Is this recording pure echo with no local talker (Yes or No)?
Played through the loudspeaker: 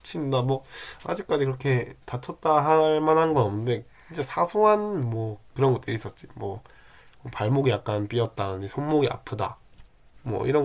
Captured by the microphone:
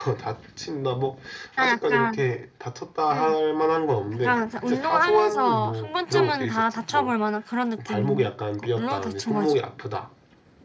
No